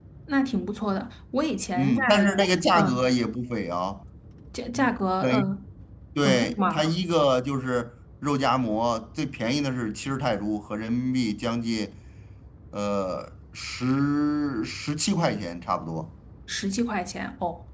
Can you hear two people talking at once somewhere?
Yes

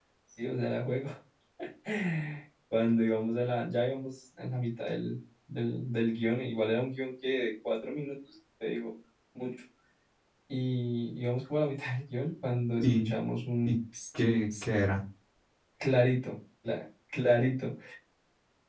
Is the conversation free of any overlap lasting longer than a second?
Yes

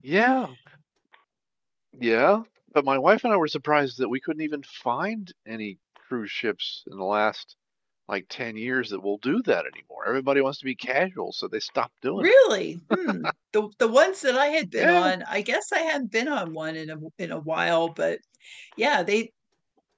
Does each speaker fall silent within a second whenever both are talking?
Yes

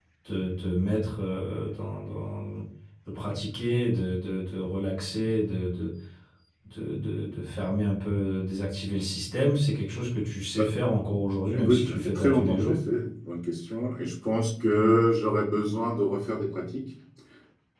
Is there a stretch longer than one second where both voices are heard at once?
Yes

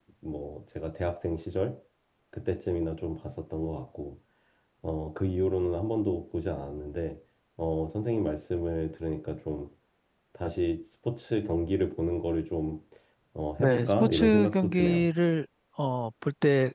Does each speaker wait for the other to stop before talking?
No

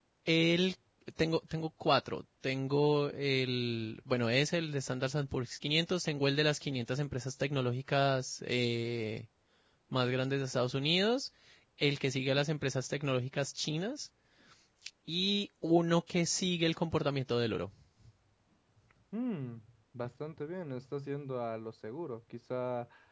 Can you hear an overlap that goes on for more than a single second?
No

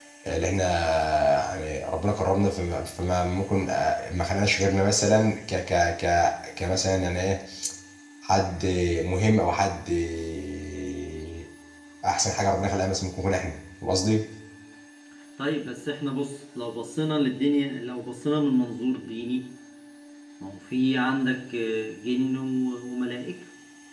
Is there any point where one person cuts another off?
No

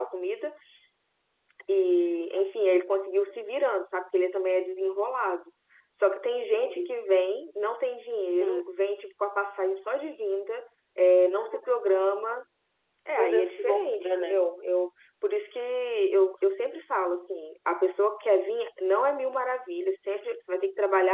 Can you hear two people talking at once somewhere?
Yes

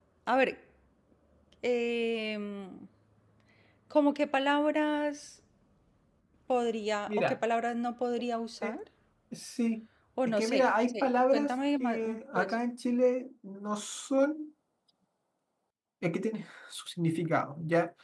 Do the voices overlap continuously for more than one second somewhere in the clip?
Yes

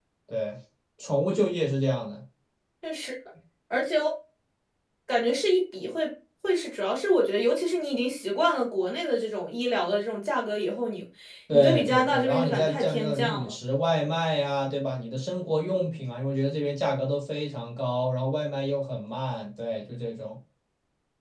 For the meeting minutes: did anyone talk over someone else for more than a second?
Yes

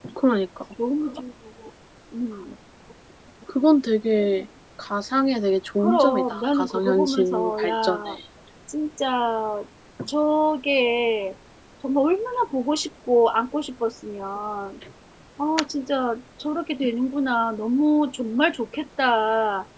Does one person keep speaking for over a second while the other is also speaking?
Yes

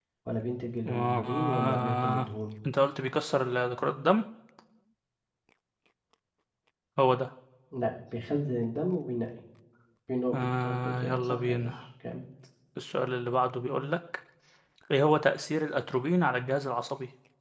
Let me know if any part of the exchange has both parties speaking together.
Yes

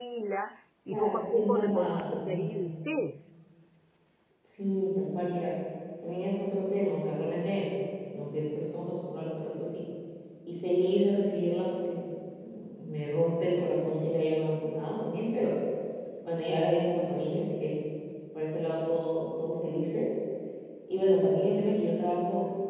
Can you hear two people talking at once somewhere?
Yes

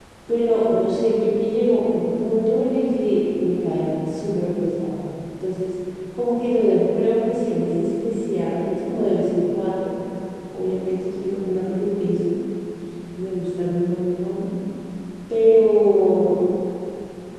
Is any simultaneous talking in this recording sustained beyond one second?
No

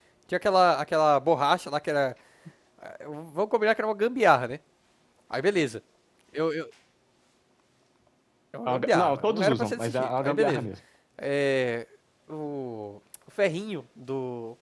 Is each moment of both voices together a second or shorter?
No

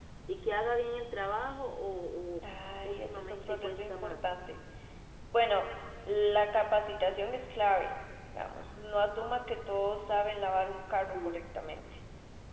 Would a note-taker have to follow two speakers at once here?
Yes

